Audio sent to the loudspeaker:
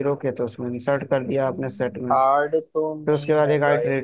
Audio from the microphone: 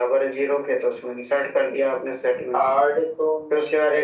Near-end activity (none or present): none